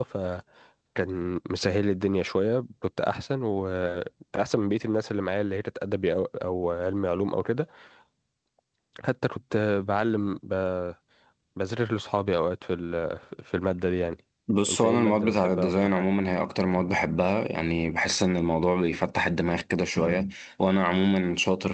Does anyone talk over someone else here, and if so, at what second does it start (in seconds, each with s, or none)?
14.7 s